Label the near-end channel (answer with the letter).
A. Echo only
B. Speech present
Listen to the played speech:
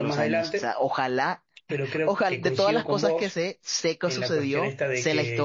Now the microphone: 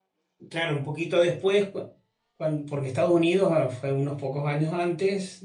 B